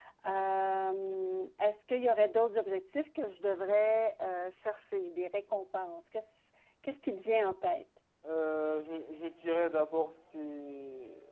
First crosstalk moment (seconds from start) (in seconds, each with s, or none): none